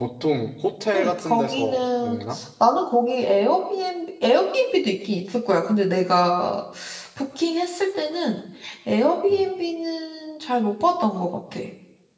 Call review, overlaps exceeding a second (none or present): present